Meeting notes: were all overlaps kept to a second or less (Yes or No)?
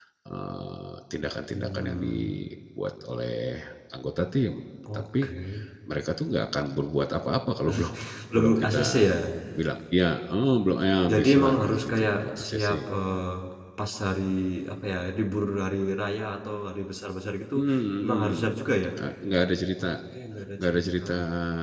No